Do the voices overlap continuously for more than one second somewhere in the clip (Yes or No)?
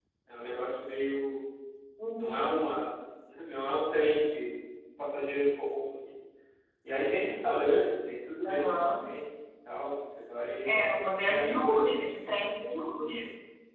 Yes